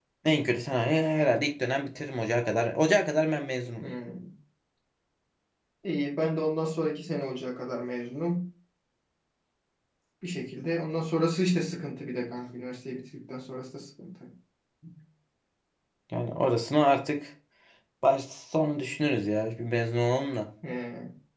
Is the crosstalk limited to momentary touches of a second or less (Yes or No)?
Yes